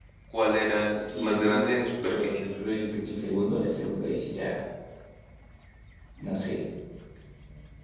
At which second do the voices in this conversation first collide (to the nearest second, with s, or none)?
1 s